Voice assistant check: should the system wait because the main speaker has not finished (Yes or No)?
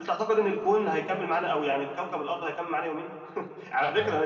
Yes